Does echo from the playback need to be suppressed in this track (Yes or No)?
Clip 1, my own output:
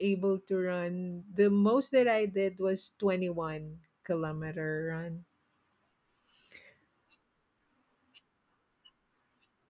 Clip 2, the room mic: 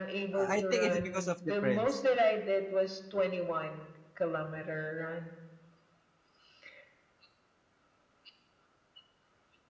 Yes